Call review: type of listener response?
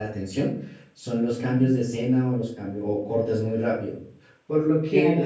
listening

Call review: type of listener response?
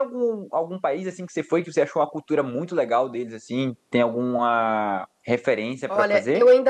taking over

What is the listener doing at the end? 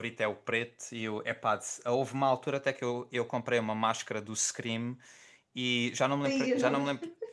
listening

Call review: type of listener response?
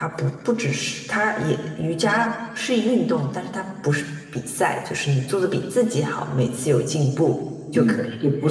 taking over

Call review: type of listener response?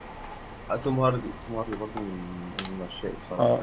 taking over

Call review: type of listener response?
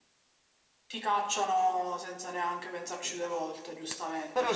taking over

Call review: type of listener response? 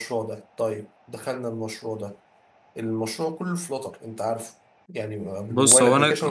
taking over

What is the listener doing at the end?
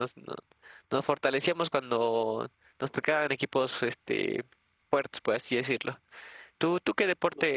listening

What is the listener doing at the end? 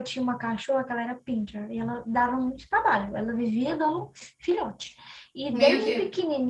listening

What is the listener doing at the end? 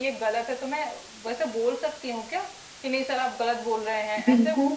taking over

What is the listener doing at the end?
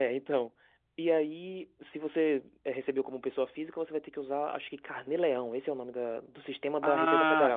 taking over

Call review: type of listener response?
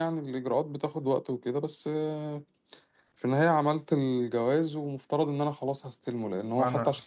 listening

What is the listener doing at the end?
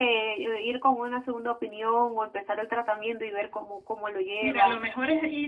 taking over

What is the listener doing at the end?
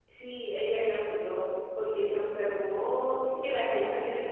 listening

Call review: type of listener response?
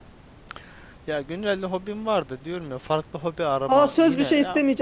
taking over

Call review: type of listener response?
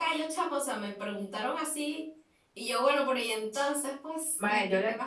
taking over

